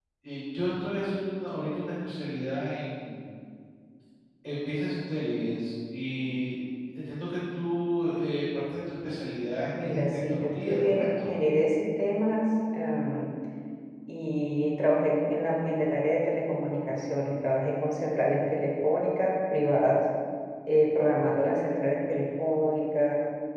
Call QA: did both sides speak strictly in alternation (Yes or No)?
No